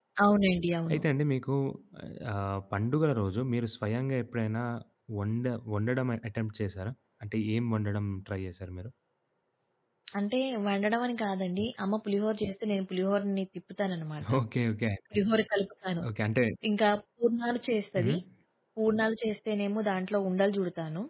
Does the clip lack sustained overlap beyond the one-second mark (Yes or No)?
Yes